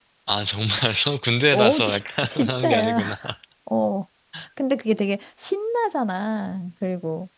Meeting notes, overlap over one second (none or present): present